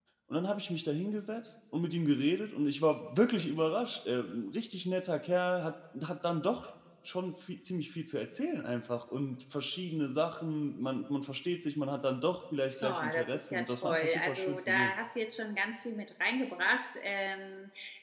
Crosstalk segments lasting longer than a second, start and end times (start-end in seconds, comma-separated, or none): 12.8-14.9